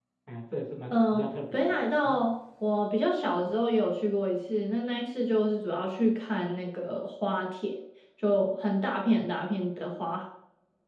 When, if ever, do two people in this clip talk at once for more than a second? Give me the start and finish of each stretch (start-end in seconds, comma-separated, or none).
0.9-2.2